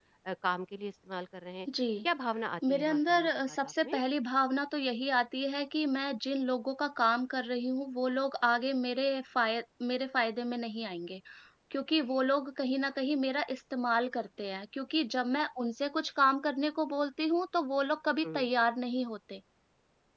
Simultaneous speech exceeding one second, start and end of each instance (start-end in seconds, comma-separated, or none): 2.7-4.0